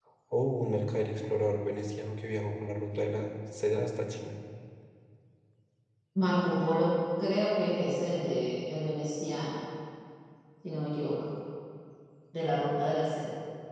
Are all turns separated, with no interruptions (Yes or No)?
Yes